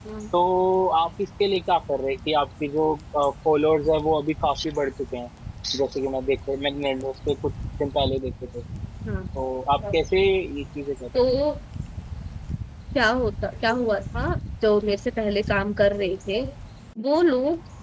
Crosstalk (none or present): none